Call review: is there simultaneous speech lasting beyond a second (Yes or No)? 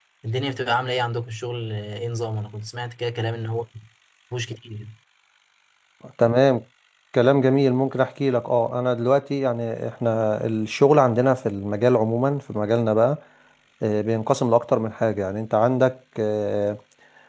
No